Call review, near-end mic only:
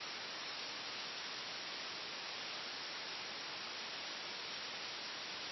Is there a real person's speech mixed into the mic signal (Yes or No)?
No